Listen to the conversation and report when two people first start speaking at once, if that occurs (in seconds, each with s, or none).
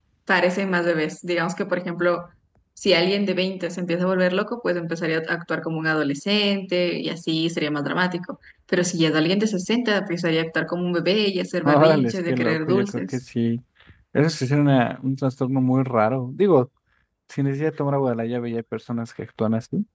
11.7 s